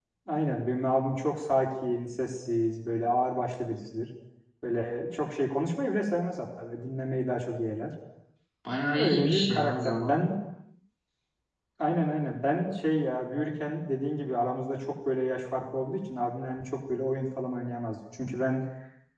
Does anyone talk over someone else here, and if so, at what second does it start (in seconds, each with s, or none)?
8.9 s